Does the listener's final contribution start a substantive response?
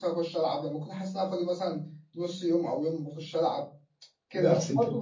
No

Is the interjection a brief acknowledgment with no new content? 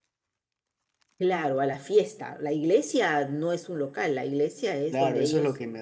No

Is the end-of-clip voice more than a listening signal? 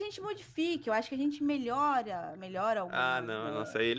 Yes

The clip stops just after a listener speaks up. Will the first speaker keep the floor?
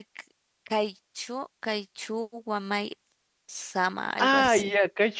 No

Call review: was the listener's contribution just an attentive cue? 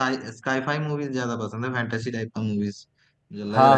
No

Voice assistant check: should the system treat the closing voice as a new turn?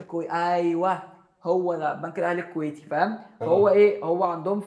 No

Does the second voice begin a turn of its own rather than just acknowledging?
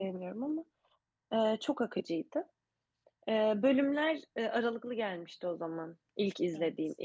No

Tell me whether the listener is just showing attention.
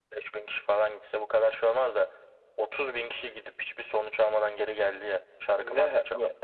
No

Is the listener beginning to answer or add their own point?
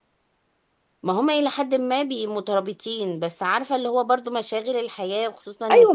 Yes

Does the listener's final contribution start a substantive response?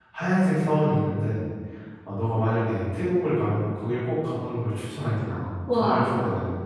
Yes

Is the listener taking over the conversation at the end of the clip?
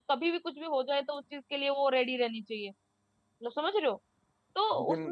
No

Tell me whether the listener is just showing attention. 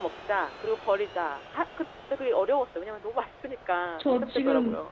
No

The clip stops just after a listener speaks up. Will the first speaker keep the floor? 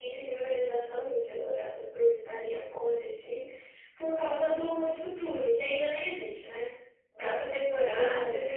No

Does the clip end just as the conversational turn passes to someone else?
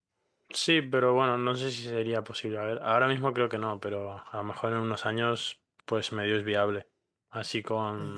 No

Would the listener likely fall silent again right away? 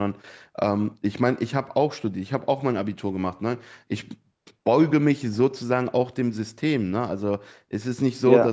Yes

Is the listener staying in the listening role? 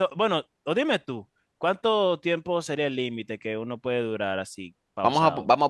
No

